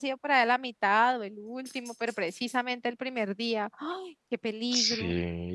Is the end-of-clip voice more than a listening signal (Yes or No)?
Yes